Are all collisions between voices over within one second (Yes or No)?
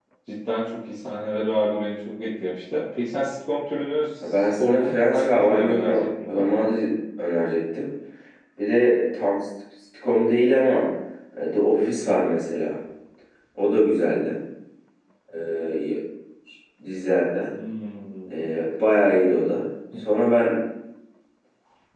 No